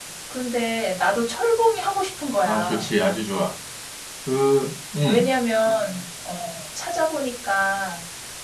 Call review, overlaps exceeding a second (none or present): none